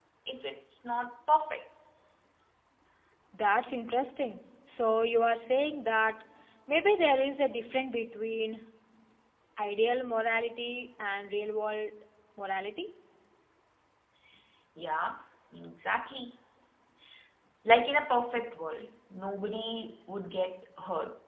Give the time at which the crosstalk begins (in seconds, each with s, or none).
none